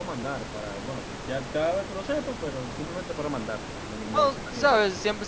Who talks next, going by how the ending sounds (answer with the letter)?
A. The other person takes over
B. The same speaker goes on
A